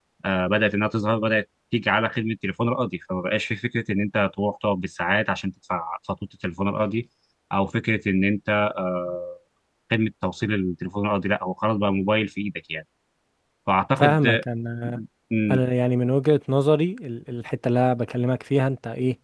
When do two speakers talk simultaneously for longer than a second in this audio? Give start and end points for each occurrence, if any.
none

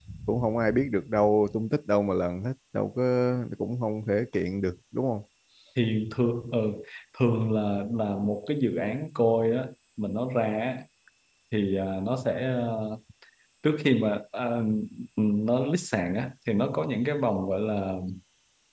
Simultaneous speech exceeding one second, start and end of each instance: none

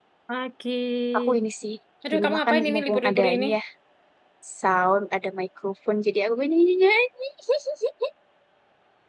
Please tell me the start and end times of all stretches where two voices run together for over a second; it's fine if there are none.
2.1-3.5

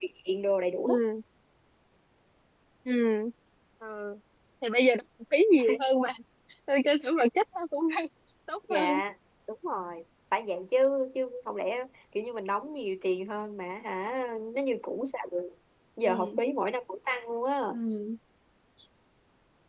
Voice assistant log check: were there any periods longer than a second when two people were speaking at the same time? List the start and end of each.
none

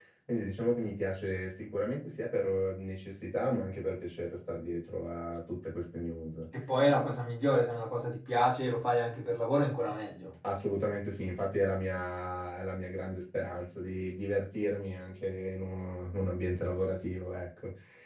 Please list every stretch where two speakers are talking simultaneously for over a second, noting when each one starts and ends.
none

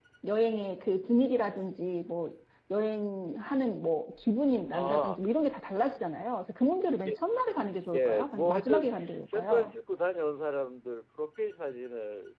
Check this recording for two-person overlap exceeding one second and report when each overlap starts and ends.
7.9-9.7

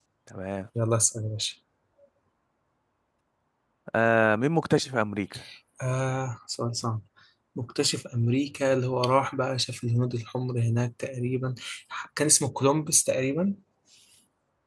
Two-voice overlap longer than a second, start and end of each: none

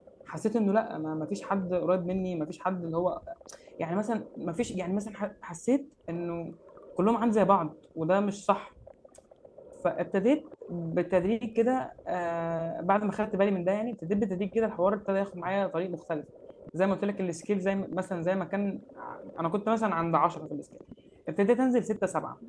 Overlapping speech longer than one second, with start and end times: none

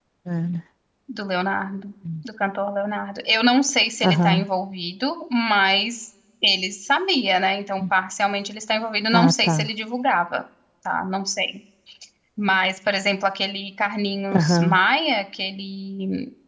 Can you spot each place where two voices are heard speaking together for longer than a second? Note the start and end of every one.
none

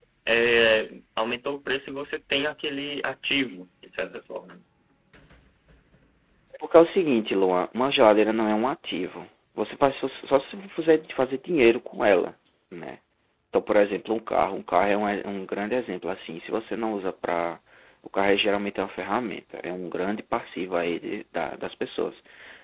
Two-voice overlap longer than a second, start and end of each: none

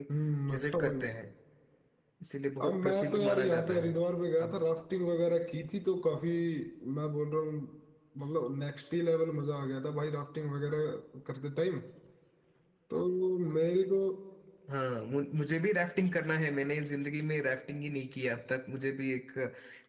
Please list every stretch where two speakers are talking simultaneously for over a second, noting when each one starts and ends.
2.6-3.9

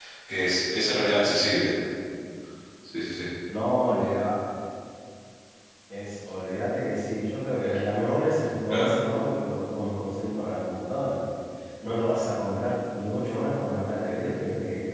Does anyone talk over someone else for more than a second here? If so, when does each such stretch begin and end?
none

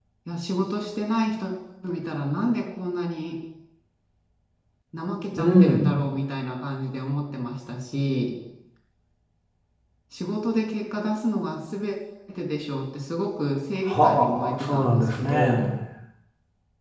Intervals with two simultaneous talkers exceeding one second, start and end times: 13.9-15.7

